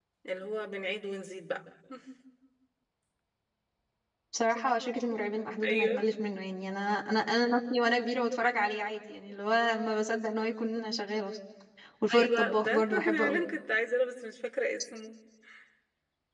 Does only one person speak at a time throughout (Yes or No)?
No